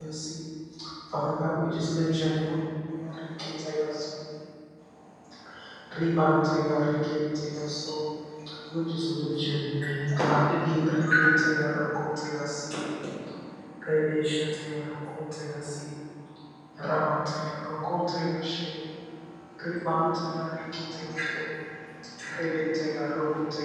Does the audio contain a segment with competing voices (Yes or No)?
No